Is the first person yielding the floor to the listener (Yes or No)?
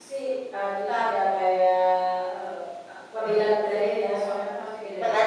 No